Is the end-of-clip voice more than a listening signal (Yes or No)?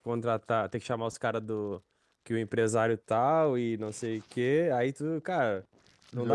No